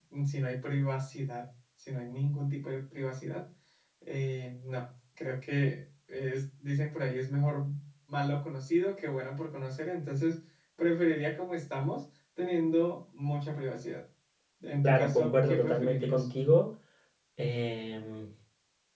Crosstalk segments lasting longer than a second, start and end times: 14.8-16.3

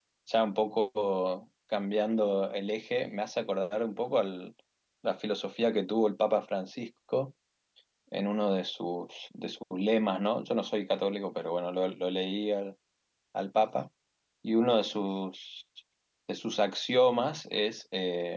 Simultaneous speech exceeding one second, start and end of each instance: none

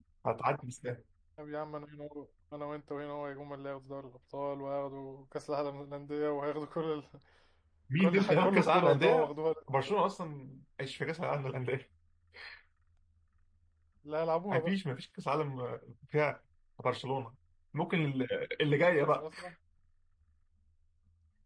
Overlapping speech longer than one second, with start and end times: 8.0-9.3

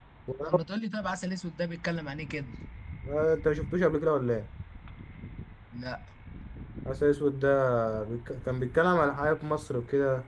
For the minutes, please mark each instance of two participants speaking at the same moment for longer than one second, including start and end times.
none

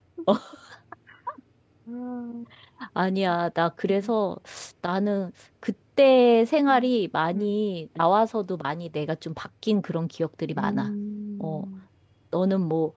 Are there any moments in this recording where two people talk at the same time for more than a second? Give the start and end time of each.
none

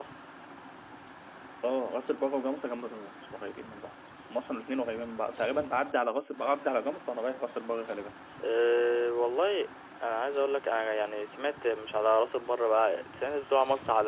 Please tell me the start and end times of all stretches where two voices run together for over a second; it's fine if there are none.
none

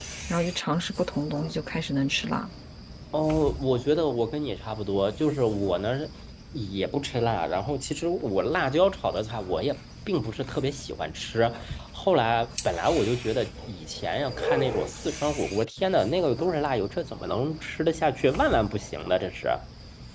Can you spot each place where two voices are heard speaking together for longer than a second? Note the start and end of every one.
none

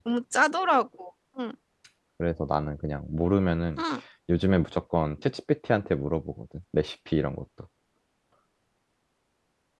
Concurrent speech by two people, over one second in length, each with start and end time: none

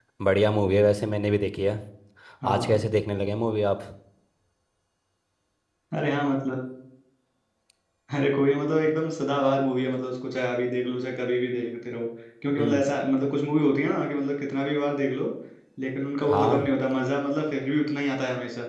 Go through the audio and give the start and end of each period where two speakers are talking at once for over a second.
none

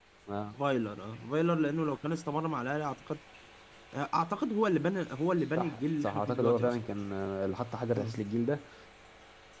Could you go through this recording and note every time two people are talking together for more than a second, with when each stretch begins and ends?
5.6-6.8

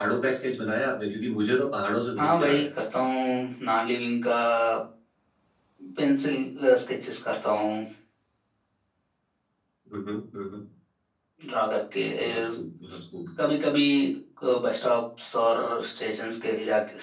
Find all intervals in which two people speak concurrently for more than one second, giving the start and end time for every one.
none

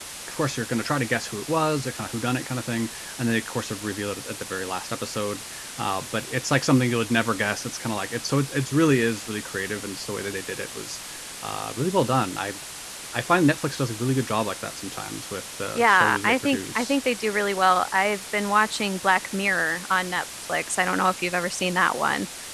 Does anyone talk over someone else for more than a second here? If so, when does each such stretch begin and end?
15.8-16.9

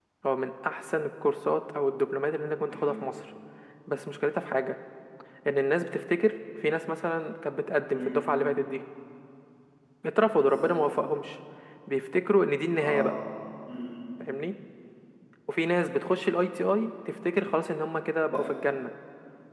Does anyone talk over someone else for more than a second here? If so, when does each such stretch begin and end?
none

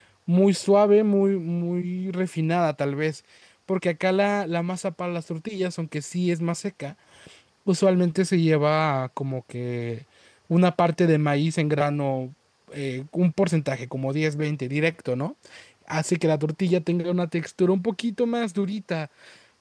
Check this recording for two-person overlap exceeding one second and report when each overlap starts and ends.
none

